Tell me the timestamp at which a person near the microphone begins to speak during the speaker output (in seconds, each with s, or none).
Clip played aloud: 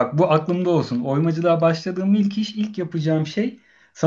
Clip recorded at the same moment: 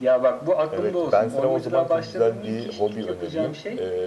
0.7 s